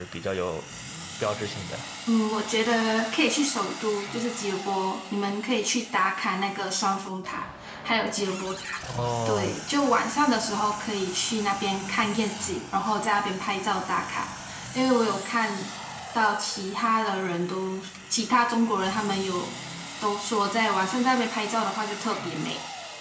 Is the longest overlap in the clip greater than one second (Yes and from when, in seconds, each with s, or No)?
No